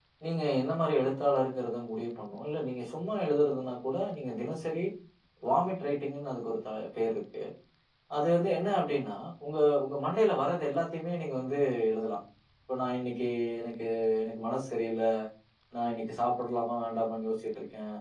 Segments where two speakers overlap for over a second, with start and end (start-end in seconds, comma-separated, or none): none